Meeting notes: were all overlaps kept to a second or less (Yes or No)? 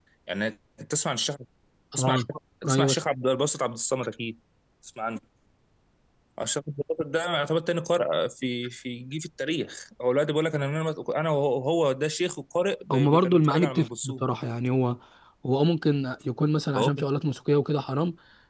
No